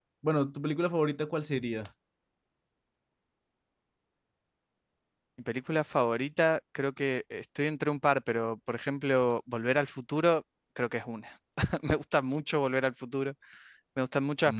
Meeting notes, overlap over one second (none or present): none